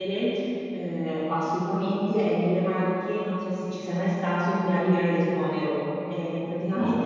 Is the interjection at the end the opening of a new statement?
No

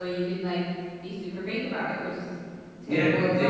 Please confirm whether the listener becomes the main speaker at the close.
Yes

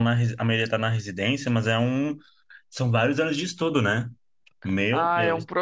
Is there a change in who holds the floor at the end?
Yes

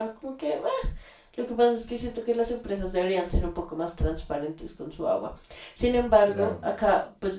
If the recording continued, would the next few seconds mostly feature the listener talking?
No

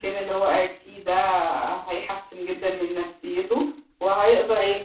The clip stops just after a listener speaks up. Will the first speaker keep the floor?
Yes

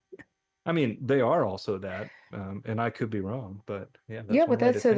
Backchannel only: No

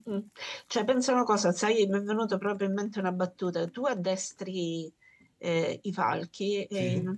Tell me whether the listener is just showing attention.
Yes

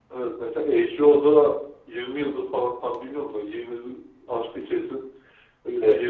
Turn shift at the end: No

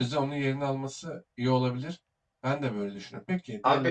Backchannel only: No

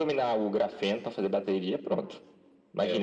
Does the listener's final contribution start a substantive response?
No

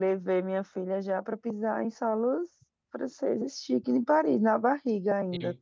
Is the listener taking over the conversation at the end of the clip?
Yes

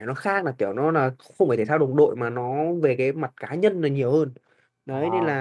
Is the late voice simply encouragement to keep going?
Yes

